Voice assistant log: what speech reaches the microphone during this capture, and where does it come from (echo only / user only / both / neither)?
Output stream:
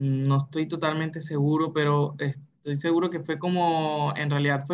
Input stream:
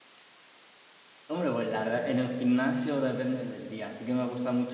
user only